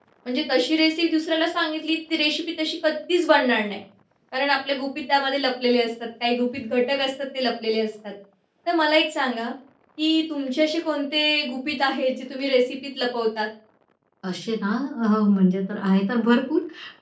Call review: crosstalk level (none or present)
none